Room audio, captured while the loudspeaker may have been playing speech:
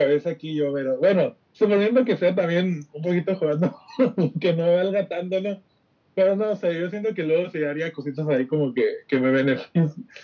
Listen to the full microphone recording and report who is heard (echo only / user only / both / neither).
echo only